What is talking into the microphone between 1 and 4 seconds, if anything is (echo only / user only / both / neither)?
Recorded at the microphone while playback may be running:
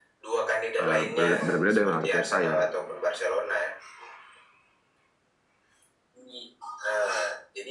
both